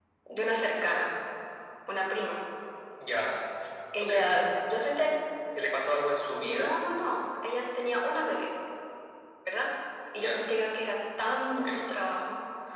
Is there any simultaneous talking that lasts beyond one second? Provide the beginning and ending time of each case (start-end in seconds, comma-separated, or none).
none